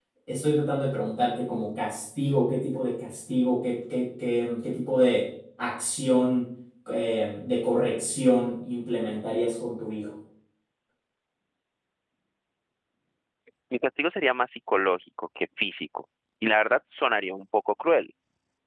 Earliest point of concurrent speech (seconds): none

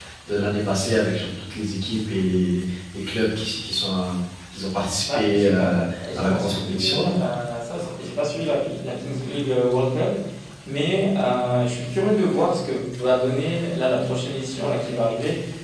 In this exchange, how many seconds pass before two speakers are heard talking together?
5.1 s

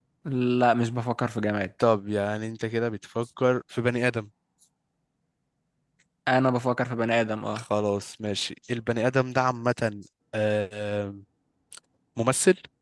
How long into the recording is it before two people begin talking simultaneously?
none

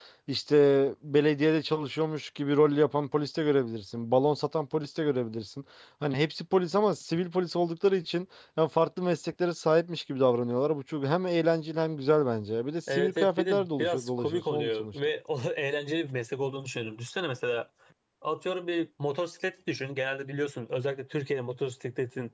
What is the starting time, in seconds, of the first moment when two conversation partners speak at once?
12.9 s

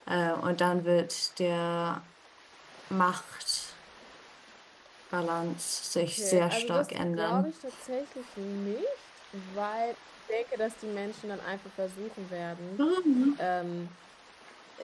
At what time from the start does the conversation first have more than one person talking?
6.0 s

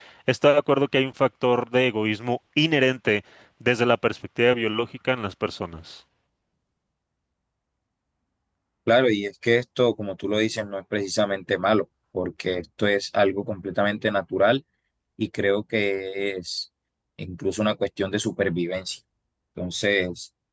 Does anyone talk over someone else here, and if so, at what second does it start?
none

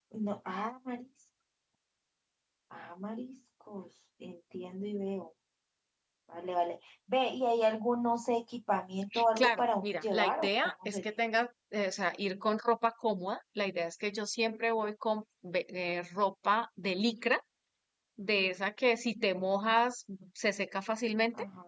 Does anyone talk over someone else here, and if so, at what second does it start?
9.1 s

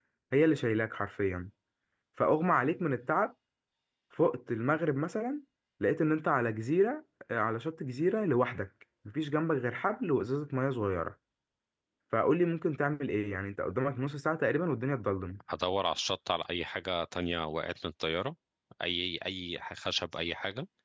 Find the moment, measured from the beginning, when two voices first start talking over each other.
none

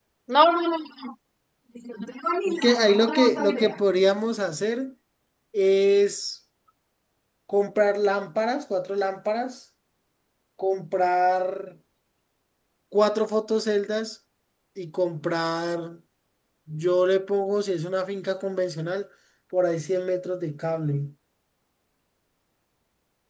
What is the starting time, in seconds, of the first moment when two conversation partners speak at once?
2.5 s

